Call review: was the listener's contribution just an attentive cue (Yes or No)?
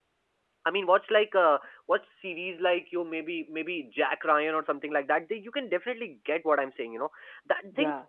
Yes